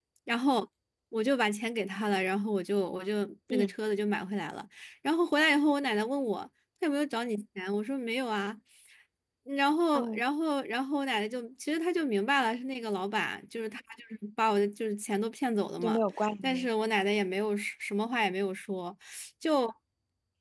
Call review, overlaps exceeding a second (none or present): none